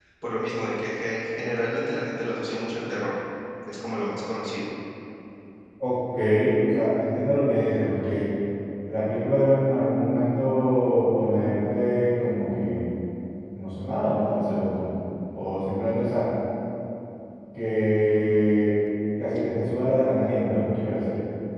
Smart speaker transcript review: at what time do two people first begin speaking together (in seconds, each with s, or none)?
none